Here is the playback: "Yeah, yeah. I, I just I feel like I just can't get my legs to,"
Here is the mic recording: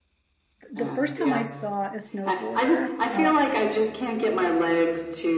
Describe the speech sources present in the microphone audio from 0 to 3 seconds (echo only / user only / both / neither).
both